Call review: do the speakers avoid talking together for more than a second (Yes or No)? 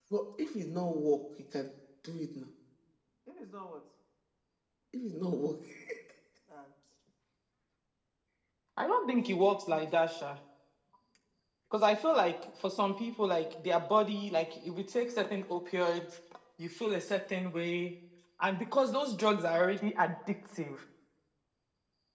Yes